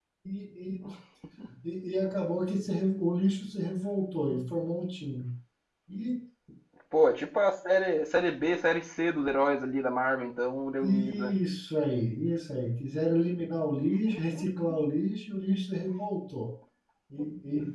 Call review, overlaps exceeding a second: none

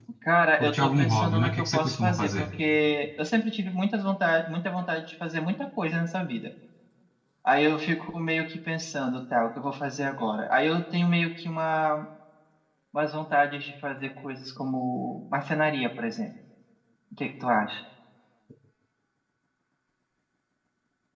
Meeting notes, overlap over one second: present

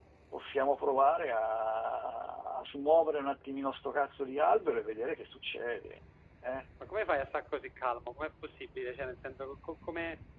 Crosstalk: none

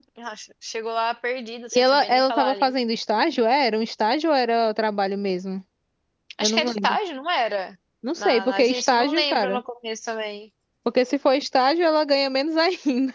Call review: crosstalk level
present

